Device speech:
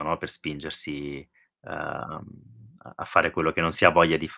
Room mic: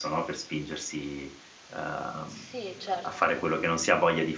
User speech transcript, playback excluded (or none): Sì, certo.